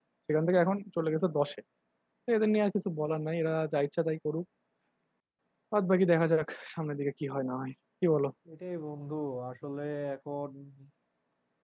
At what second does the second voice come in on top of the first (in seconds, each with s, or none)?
none